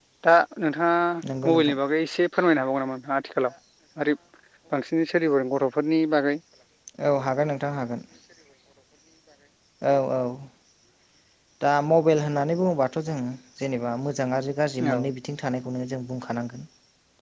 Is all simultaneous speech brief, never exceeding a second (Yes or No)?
Yes